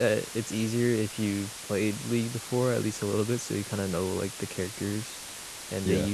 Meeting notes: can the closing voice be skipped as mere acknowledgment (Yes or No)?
Yes